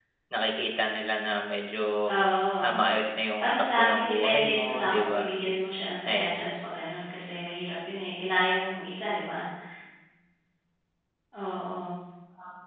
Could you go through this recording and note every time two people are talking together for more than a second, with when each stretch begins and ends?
3.4-5.2

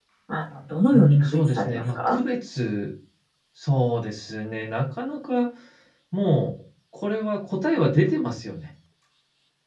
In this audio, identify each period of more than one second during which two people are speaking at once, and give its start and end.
0.9-2.2

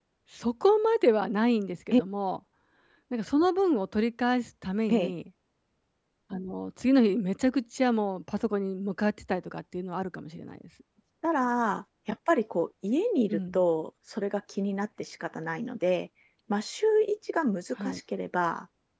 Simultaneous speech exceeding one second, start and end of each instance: none

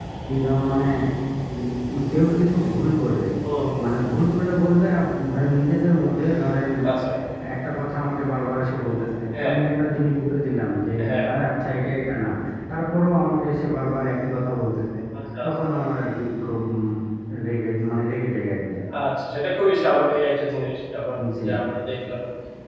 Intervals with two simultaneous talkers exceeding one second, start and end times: none

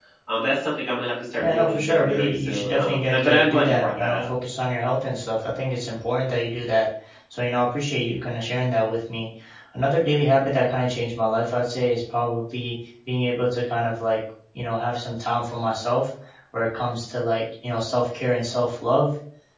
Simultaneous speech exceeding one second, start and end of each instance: 1.4-4.3

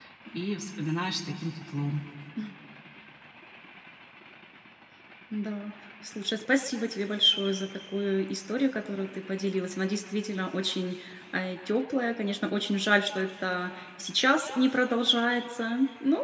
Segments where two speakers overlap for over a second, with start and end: none

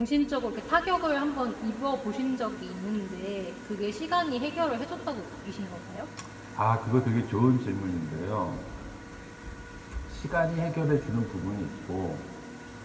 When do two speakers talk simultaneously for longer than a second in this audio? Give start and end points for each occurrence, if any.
none

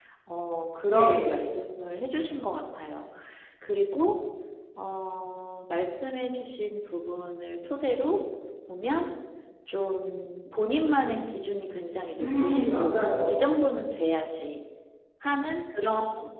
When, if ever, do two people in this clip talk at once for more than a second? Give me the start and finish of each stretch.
12.2-13.5

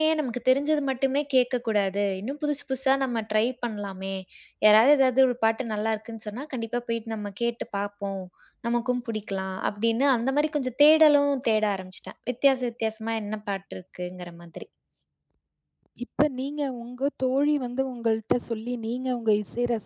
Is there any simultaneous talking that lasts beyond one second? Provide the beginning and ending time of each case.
none

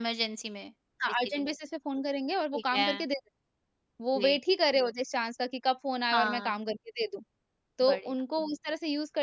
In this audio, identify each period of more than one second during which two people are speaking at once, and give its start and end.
none

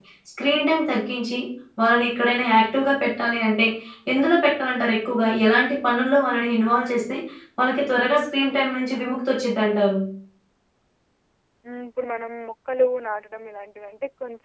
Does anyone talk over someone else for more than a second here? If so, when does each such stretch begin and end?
none

